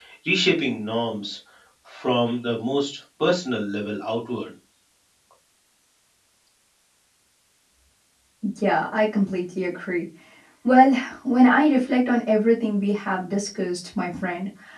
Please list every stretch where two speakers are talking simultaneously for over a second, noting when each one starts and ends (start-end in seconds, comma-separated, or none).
none